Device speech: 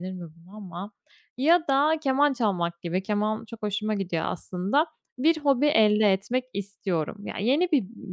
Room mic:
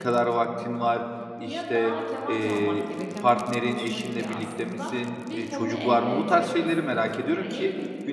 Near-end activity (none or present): present